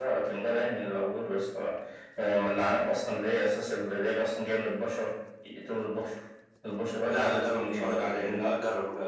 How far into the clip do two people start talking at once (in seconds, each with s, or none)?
7.1 s